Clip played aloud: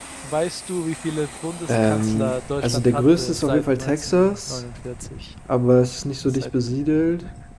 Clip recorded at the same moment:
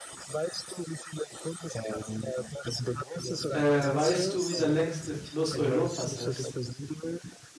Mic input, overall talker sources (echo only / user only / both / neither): both